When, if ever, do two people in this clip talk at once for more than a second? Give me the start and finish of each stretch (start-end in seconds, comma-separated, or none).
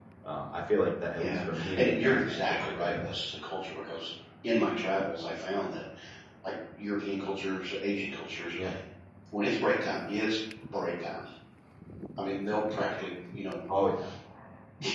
1.2-2.9